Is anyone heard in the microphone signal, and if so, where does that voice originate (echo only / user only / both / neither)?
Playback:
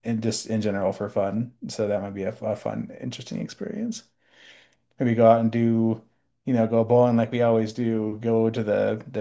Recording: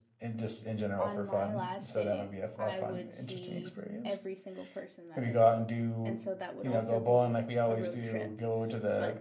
both